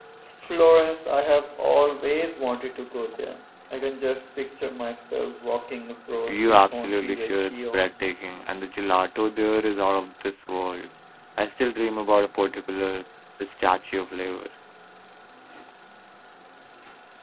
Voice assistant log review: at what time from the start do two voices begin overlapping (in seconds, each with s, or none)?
6.3 s